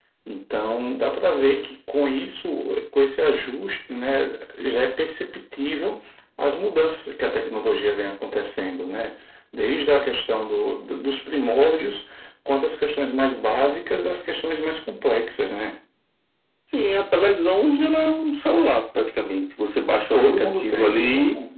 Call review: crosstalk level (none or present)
present